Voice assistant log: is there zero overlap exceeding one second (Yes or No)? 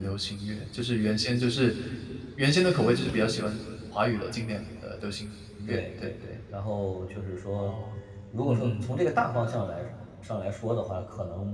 Yes